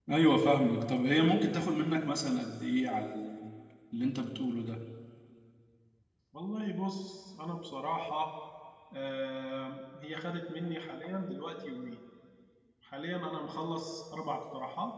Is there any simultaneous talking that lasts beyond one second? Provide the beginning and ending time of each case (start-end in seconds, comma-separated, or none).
none